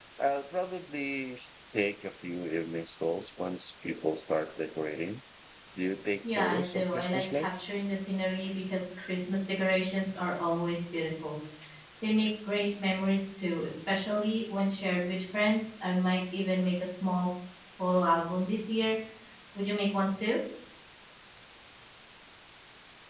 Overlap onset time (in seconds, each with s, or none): 6.4 s